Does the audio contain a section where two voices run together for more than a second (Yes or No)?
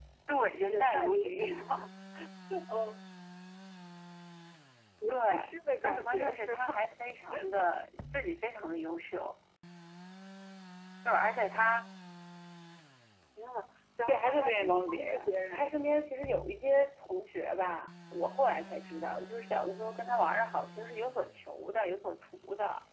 Yes